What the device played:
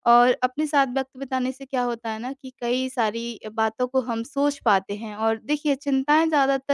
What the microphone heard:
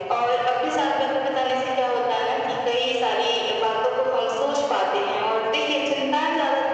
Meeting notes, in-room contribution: none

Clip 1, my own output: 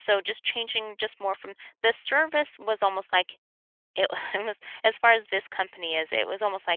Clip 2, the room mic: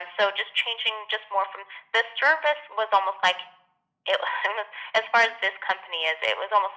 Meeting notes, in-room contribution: none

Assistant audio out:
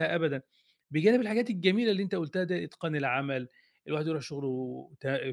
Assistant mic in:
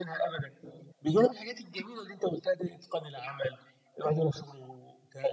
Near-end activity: none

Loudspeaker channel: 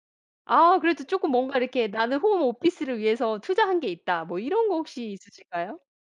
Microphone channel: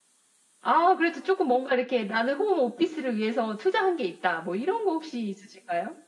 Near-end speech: none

